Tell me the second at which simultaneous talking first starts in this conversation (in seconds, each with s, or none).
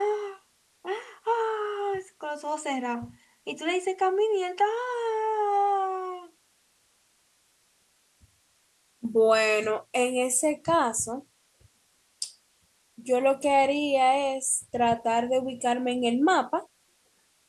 none